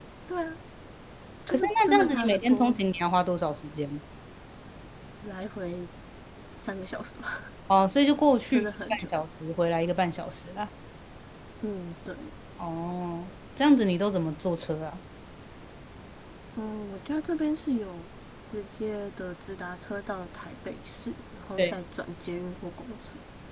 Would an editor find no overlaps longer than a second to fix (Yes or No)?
No